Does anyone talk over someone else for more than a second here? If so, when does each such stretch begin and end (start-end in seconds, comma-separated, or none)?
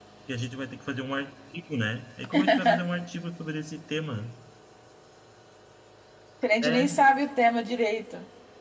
none